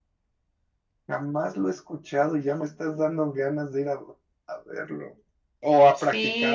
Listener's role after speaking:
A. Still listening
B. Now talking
B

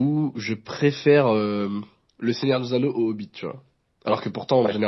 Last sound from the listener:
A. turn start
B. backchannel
B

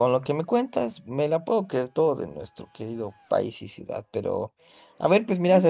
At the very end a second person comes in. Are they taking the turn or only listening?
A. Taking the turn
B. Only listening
B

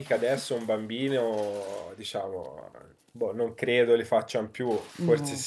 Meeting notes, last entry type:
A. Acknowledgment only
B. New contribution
A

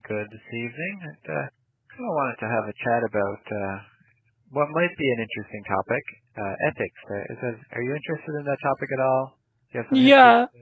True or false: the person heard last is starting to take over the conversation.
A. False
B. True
B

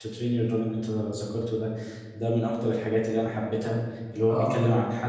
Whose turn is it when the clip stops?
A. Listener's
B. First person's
B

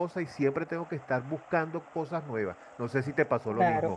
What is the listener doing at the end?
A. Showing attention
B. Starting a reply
B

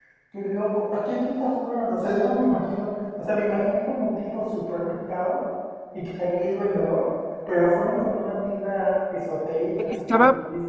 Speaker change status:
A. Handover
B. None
A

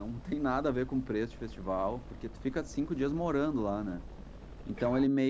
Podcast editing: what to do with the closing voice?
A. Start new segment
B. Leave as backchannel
B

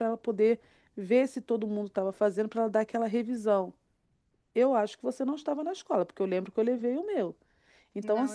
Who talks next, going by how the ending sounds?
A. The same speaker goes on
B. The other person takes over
A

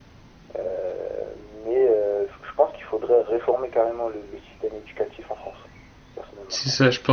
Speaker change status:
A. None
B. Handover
B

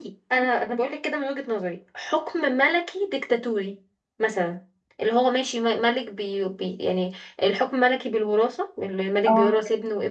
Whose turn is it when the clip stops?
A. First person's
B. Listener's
A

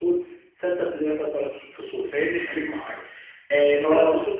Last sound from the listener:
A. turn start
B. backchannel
B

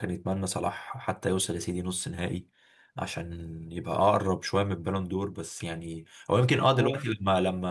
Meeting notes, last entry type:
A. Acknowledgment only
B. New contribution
A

